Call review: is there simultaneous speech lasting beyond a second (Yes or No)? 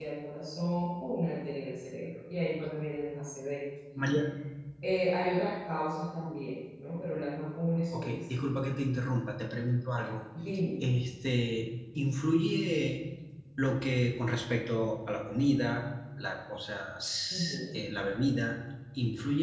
No